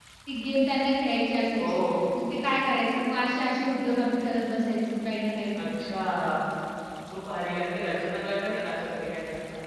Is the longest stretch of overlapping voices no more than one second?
Yes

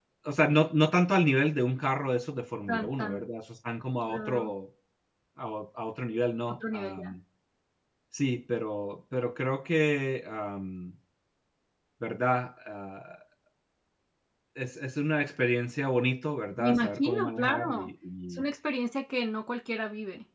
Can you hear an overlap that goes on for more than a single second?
Yes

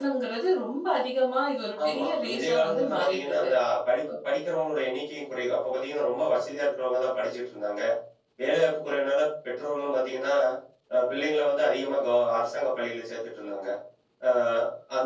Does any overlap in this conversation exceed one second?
Yes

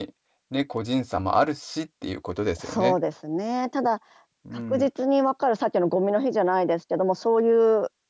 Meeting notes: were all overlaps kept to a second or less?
Yes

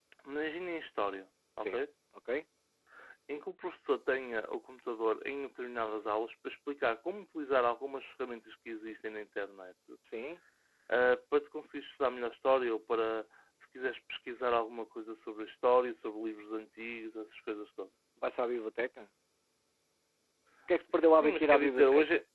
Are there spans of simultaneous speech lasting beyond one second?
Yes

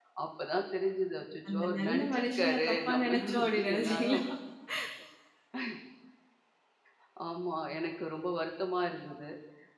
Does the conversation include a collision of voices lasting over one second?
Yes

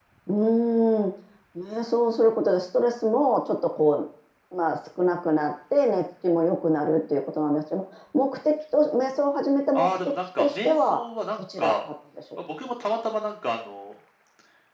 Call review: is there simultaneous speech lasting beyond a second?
Yes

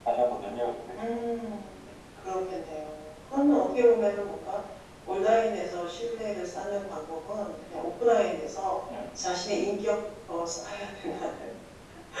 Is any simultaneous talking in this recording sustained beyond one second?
No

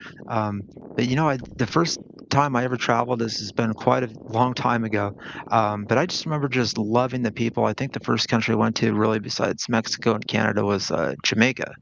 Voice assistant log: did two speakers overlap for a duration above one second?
No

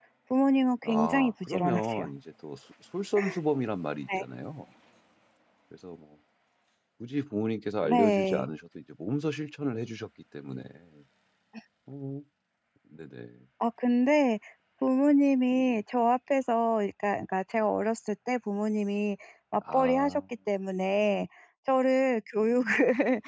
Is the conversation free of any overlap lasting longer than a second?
No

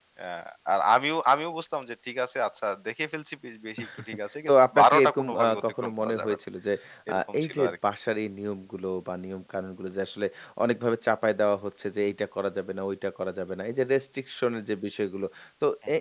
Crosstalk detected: Yes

